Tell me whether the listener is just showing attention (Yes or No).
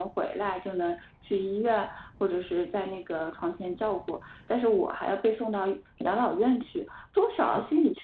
Yes